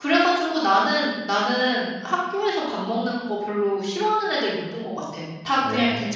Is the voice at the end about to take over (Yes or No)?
No